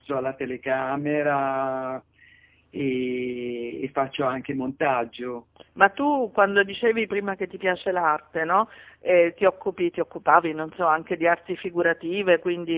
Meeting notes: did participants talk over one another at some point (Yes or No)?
No